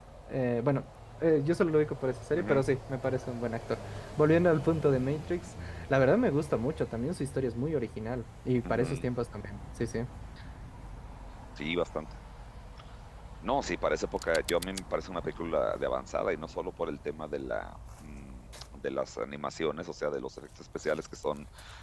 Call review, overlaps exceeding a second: none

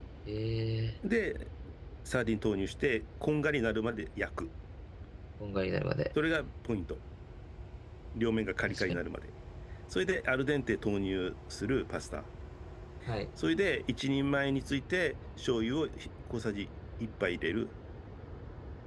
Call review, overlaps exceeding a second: none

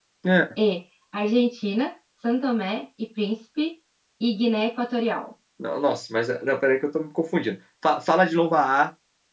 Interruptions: none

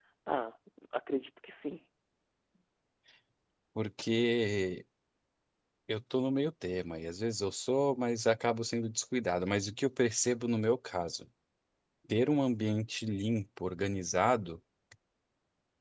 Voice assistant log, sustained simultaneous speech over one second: none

